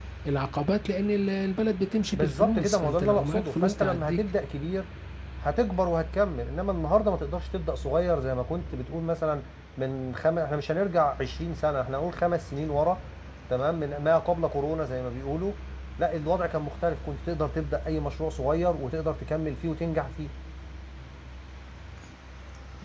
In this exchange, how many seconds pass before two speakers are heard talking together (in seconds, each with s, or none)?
2.1 s